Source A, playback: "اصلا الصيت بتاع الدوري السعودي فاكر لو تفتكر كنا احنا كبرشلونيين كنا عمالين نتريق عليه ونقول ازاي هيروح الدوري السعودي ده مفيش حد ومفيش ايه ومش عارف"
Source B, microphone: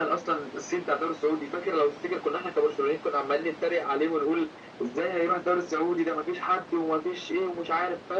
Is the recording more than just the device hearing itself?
No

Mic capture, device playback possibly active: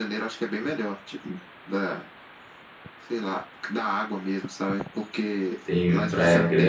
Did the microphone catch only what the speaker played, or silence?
No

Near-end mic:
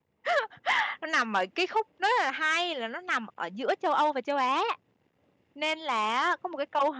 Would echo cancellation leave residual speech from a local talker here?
Yes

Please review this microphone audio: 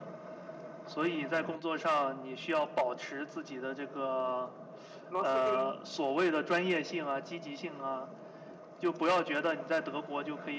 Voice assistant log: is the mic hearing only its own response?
No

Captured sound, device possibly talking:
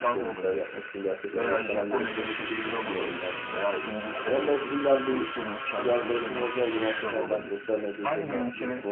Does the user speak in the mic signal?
Yes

